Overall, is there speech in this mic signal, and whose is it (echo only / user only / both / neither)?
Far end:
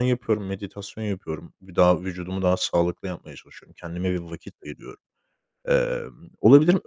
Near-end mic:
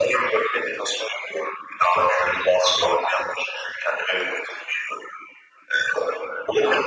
echo only